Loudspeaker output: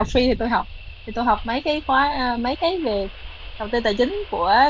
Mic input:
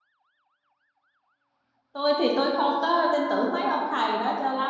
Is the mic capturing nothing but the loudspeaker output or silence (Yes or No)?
No